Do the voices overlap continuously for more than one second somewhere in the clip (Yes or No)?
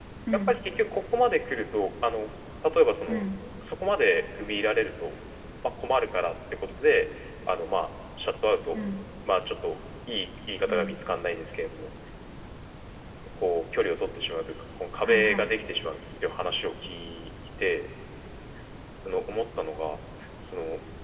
No